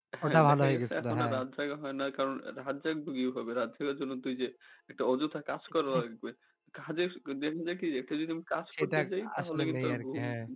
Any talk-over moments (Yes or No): Yes